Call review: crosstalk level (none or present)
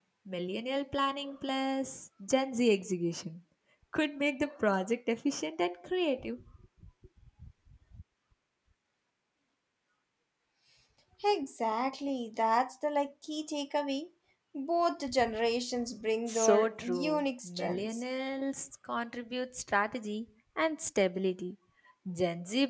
present